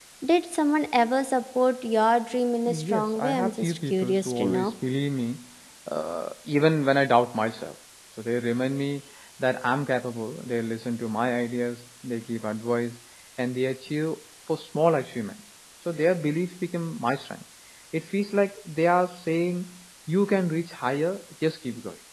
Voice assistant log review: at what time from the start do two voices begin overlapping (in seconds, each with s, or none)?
2.7 s